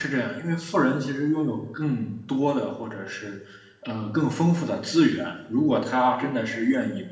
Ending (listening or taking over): listening